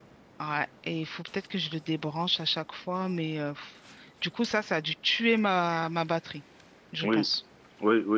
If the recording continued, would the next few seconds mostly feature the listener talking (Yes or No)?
Yes